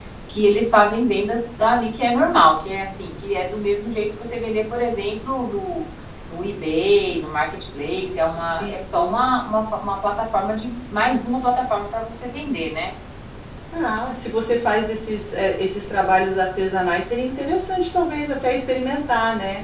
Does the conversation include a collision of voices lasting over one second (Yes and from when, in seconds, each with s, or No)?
No